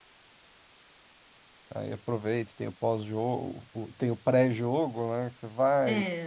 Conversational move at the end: taking over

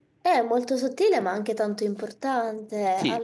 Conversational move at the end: taking over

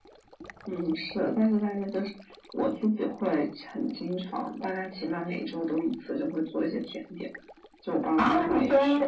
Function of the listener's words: taking over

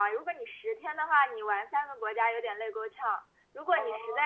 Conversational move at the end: listening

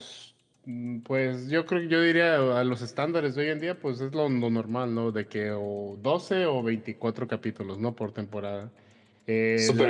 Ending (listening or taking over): taking over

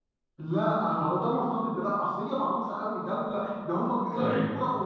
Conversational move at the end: listening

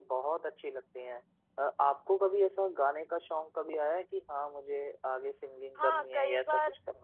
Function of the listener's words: taking over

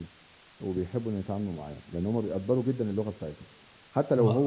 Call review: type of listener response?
listening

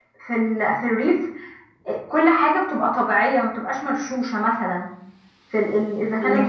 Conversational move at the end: listening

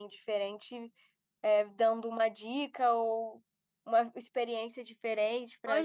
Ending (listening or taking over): taking over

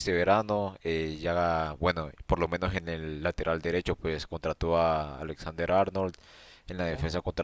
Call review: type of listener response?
listening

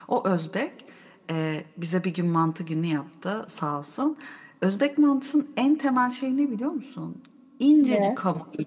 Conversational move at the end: listening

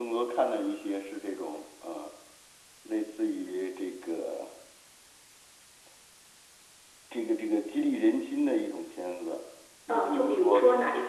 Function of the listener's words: taking over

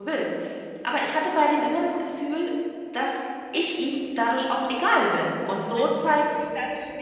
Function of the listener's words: taking over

